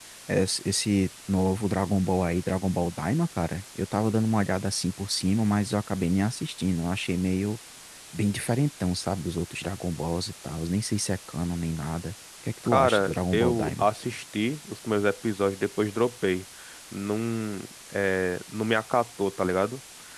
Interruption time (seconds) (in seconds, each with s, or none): 12.6 s